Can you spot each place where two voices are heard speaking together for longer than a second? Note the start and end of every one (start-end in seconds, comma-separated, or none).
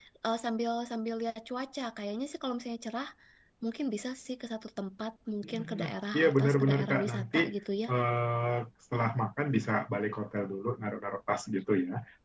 6.1-7.4